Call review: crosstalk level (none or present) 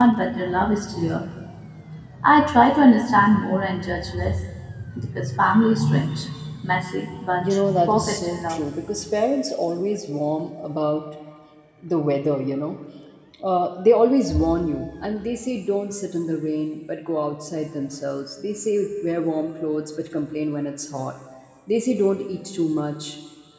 present